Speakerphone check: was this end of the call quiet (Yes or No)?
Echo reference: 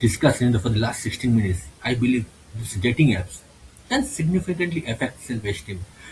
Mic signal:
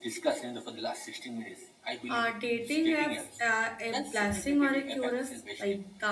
No